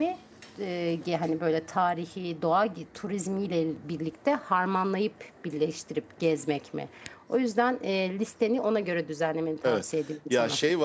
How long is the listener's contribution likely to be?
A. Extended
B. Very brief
A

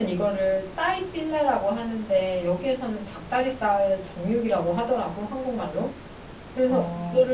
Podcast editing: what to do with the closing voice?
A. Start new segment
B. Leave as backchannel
B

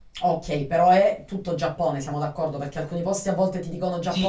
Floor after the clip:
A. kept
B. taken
B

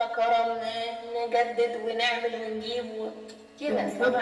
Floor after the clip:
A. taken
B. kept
A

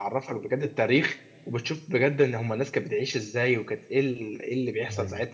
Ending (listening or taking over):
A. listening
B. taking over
A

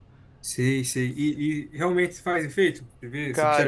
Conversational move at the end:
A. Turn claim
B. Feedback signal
A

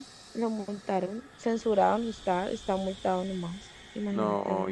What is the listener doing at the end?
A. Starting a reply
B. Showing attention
A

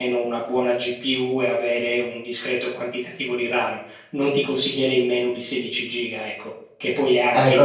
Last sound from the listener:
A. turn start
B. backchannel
A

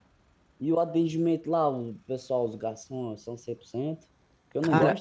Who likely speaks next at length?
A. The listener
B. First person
B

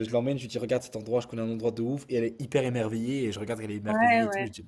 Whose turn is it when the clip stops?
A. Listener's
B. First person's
A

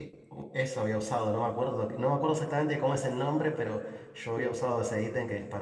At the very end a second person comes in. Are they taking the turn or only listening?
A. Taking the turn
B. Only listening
B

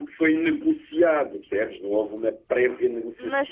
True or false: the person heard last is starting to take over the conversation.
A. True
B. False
A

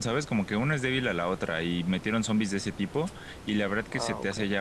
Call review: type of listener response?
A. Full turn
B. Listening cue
B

